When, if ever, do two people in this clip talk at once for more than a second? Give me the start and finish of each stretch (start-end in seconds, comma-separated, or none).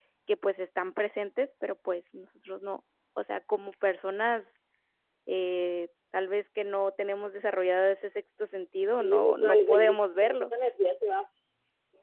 9.0-10.5